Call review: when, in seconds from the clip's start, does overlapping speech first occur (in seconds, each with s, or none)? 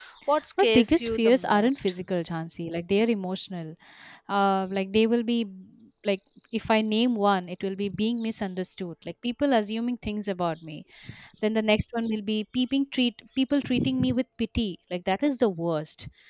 0.6 s